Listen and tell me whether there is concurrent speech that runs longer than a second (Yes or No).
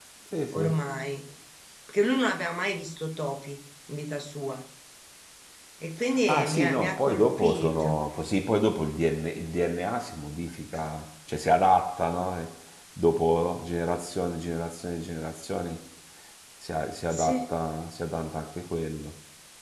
Yes